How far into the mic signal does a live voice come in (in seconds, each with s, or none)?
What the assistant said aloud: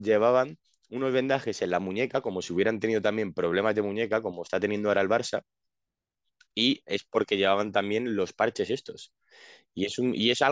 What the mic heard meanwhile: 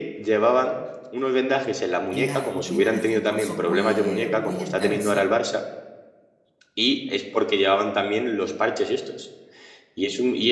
2.1 s